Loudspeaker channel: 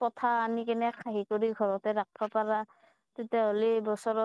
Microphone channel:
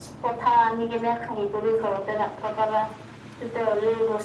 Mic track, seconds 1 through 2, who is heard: echo only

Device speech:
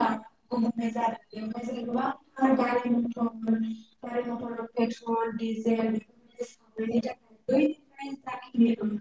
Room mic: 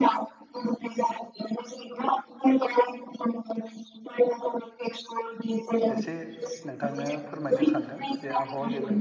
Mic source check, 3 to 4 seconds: echo only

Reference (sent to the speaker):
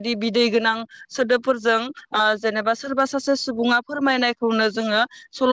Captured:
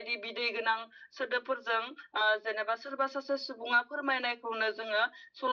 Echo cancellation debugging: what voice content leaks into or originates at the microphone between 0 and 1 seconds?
echo only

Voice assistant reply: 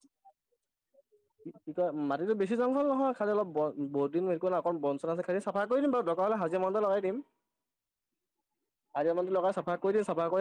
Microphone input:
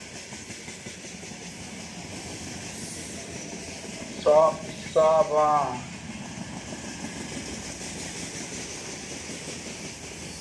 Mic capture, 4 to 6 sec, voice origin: user only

